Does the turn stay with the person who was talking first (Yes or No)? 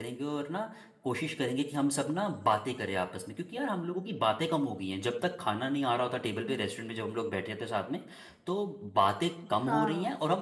Yes